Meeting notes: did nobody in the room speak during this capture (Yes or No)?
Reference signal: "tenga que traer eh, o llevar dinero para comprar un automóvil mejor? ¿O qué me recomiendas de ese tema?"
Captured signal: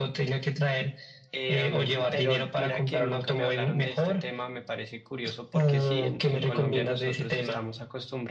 No